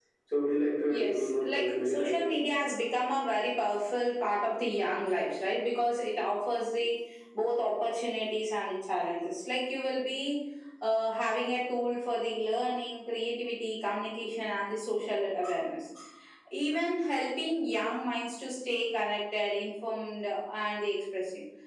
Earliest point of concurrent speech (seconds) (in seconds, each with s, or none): 0.9 s